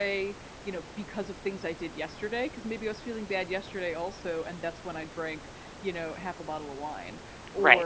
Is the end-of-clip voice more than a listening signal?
No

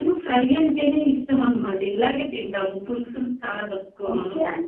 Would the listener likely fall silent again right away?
No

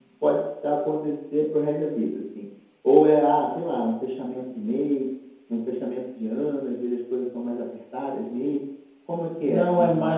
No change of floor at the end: No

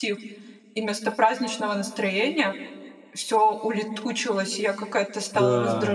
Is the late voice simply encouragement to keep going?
Yes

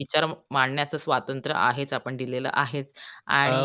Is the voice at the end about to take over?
Yes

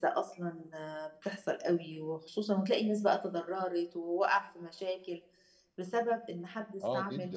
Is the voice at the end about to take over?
No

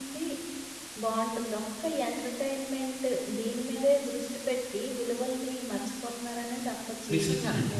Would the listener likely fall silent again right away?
No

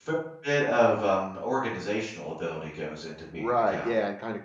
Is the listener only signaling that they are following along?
No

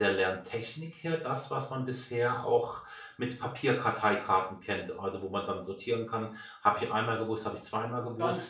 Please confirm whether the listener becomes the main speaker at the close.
Yes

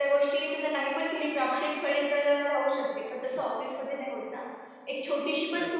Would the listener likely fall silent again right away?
Yes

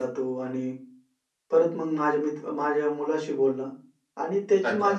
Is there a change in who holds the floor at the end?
No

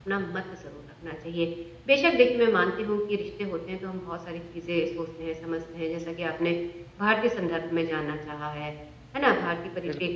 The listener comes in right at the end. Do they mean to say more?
No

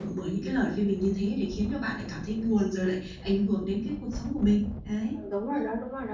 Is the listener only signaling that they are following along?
No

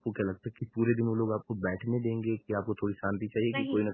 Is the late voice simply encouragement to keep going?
Yes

